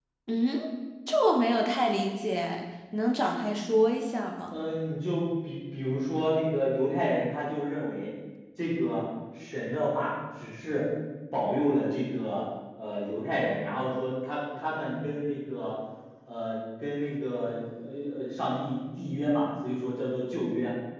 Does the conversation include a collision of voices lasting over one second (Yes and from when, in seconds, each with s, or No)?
No